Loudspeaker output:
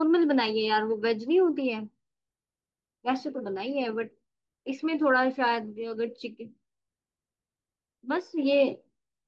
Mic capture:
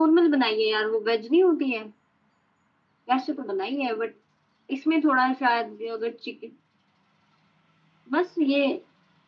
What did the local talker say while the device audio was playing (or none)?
none